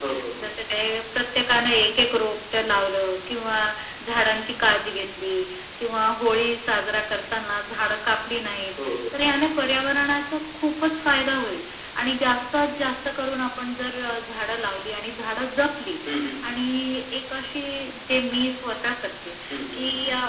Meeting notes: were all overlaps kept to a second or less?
Yes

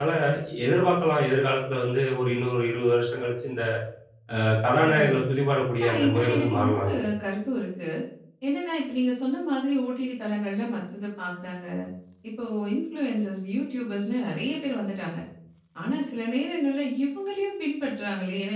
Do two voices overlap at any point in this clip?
Yes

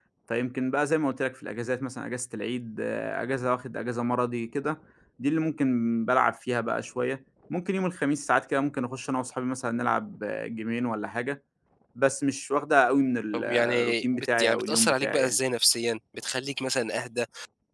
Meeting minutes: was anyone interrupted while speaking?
Yes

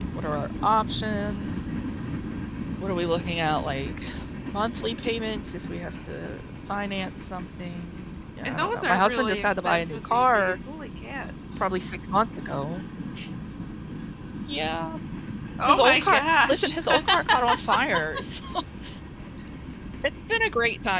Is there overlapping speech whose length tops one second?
Yes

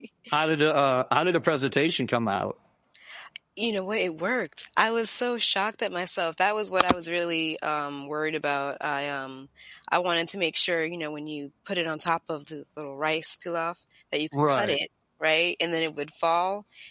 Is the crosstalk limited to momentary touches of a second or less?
Yes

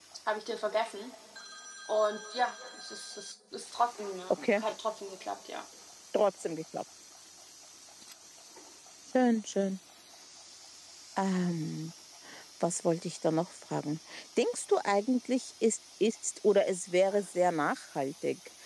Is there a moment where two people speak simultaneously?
No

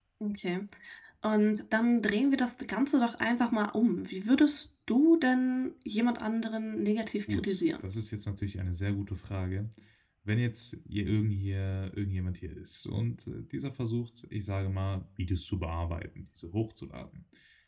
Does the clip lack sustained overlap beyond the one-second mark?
Yes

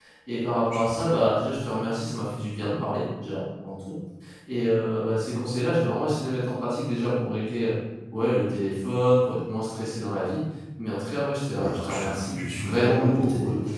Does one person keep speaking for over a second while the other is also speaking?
Yes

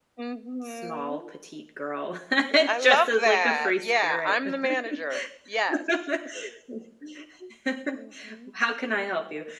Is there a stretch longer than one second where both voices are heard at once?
Yes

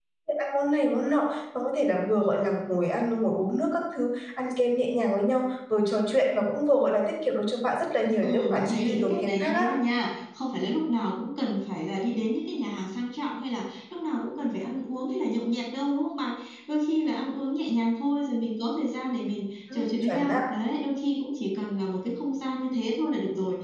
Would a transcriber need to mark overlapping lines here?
Yes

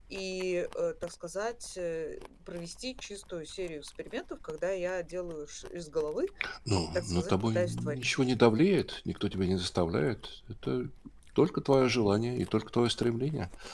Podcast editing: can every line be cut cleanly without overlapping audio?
No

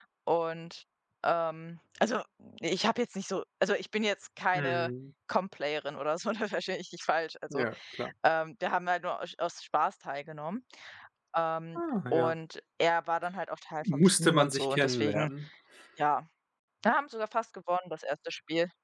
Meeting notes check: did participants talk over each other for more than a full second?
Yes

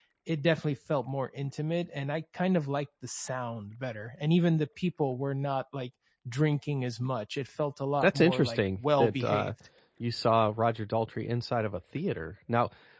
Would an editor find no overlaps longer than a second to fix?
No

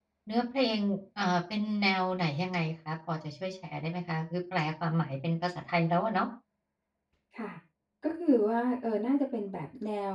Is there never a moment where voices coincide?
Yes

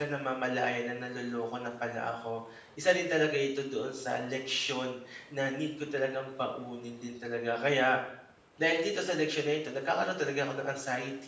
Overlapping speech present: No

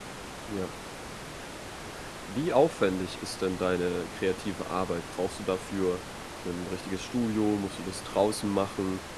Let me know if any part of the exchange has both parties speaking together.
No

